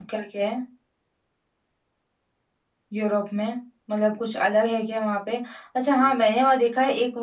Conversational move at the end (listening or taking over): listening